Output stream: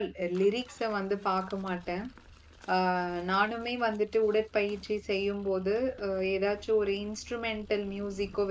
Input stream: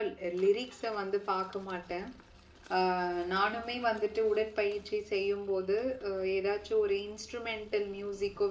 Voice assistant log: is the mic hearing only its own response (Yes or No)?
Yes